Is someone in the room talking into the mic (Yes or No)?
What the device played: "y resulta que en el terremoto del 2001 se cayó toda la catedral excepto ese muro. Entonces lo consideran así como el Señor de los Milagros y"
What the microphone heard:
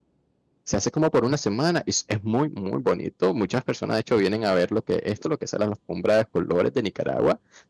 Yes